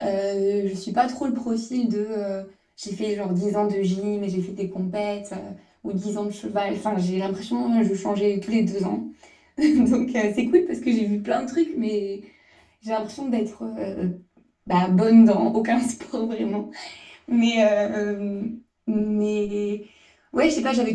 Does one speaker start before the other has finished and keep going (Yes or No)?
No